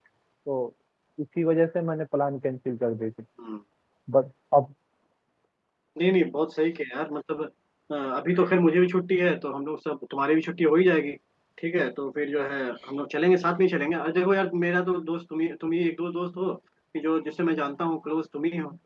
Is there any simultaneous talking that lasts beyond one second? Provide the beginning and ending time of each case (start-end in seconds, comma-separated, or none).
none